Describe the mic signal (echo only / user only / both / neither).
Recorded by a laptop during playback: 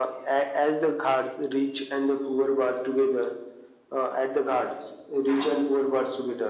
echo only